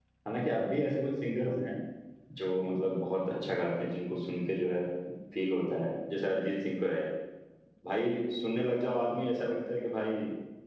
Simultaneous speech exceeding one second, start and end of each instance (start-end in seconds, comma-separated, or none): none